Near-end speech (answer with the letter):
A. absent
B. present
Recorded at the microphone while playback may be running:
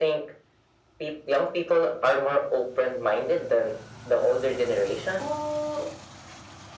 B